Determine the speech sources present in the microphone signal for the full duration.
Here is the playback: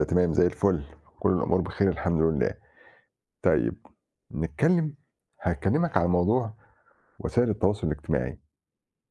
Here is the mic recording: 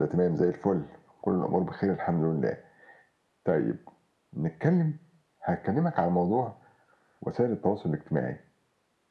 echo only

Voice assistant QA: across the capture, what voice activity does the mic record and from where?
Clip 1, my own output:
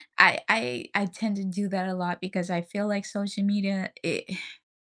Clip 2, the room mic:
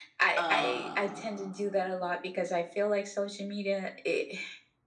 both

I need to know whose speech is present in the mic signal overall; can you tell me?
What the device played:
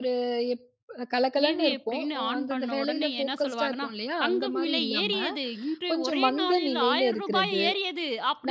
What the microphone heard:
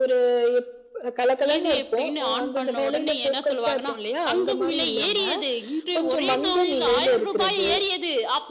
echo only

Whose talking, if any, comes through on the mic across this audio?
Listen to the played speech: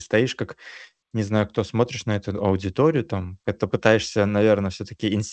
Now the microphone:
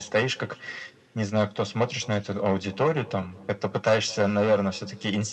echo only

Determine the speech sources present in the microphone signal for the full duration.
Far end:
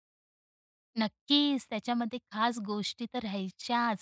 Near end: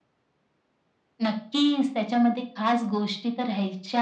echo only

